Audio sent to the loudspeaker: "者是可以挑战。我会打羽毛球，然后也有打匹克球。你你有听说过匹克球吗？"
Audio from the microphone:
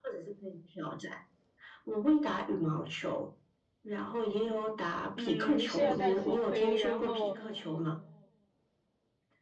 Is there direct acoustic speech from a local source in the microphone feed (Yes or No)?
Yes